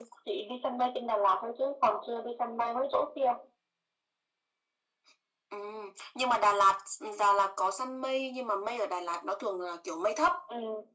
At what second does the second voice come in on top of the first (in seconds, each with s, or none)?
none